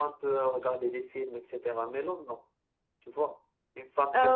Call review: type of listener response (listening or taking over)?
taking over